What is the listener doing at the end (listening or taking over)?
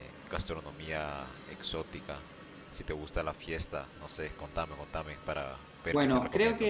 taking over